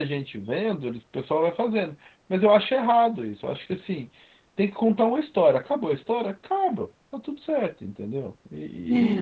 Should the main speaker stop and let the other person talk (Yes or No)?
No